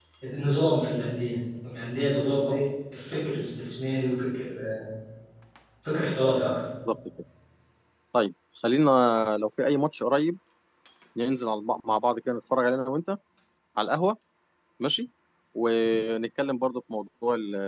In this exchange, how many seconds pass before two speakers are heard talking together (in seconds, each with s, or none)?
none